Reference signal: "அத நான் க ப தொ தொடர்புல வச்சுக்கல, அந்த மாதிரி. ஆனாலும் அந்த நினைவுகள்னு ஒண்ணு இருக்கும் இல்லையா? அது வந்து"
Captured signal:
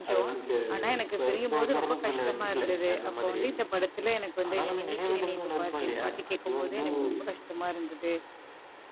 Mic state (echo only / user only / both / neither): both